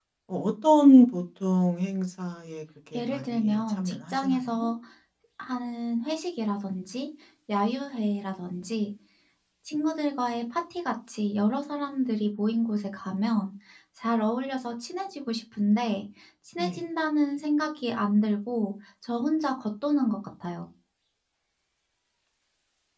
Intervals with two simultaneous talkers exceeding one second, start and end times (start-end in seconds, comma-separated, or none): 3.0-4.7